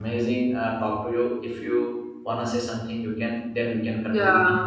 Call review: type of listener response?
taking over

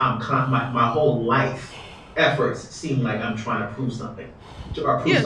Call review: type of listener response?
taking over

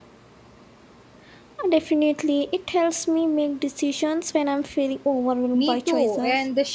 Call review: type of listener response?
taking over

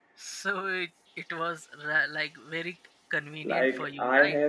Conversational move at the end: taking over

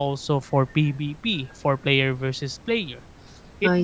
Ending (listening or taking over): listening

